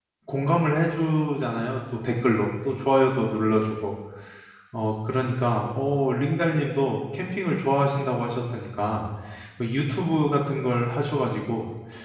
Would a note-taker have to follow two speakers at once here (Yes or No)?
No